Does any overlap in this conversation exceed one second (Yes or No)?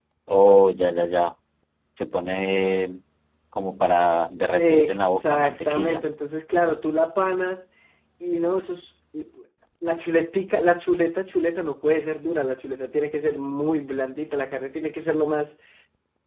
Yes